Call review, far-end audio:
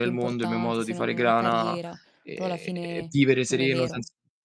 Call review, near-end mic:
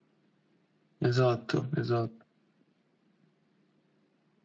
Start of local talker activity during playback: 1.0 s

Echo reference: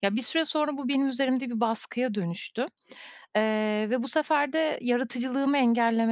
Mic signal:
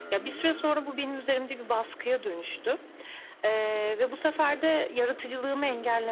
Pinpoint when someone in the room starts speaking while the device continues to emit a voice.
none

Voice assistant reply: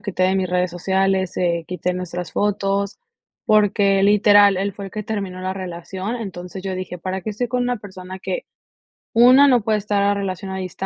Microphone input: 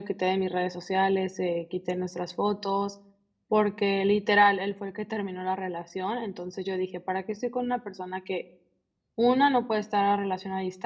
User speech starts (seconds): none

